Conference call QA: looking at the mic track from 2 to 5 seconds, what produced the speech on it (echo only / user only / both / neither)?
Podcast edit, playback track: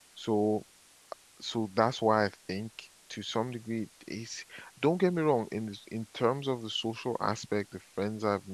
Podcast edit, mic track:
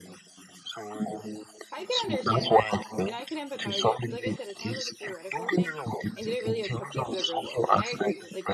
both